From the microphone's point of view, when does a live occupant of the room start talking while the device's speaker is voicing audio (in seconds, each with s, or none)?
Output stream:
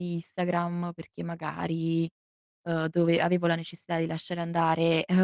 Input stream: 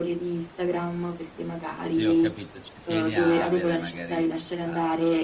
1.9 s